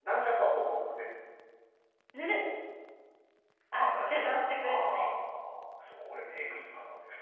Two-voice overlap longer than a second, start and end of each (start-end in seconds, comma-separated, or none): 3.7-5.1